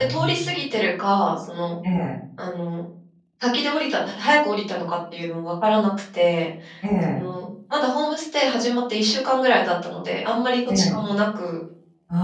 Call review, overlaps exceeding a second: none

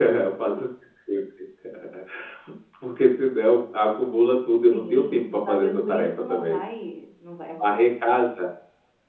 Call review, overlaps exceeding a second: present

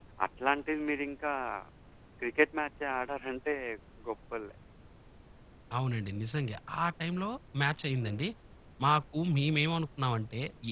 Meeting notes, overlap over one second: none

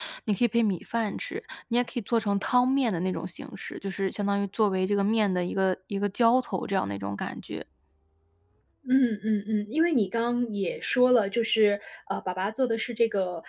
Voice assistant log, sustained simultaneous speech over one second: none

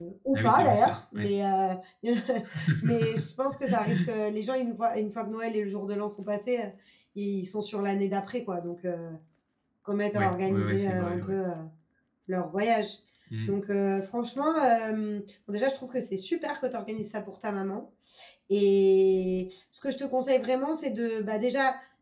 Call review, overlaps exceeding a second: present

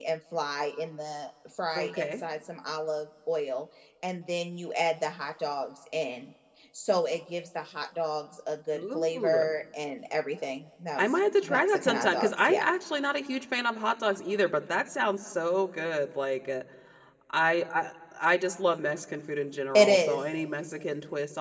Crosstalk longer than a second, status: present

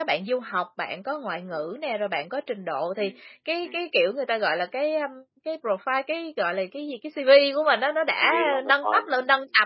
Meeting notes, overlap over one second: present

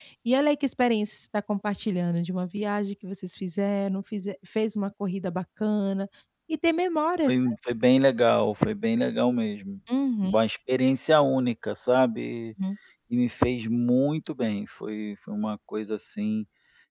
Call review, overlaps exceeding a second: none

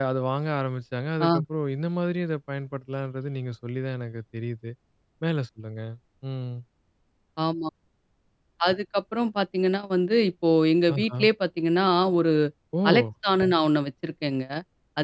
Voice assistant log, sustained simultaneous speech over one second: none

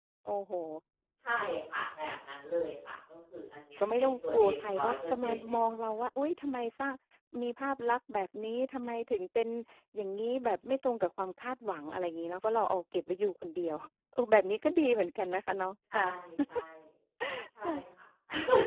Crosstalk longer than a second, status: present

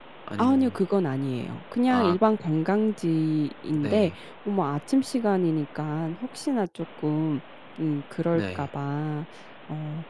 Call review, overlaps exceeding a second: none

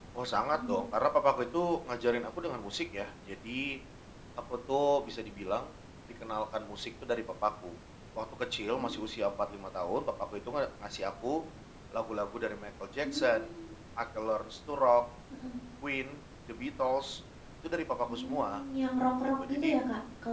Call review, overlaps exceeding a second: none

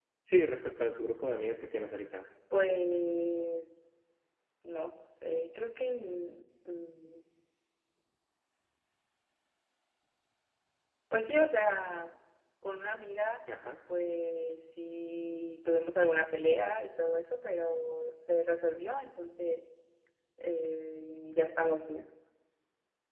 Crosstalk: none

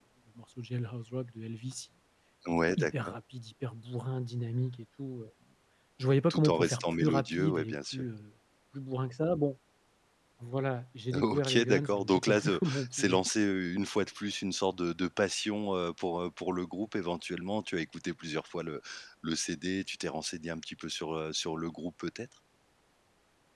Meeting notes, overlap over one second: present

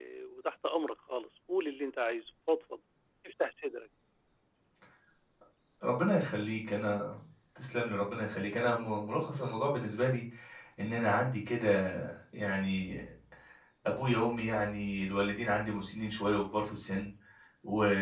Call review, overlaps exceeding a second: none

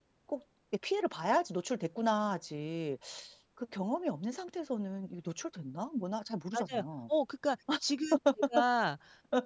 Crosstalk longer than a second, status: none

